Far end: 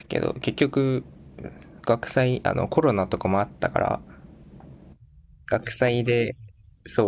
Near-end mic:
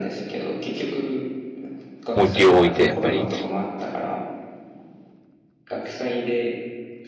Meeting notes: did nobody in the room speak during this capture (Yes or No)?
No